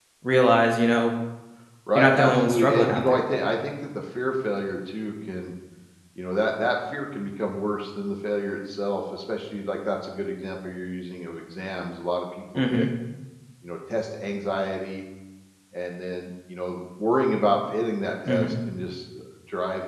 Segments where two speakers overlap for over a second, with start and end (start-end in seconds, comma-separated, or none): 1.9-3.2